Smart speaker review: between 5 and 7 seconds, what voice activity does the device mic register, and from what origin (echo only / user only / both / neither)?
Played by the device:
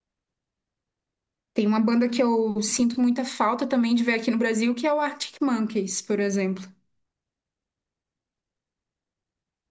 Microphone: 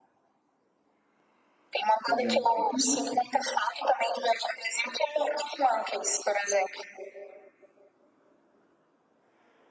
echo only